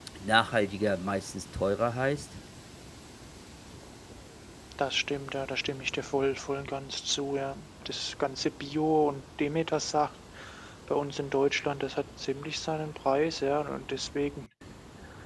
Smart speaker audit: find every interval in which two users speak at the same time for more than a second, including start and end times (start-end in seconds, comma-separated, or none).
none